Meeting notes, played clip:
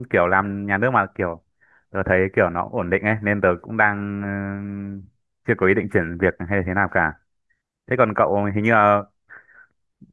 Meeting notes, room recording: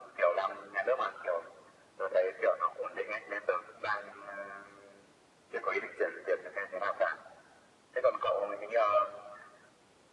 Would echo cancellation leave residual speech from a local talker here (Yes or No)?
No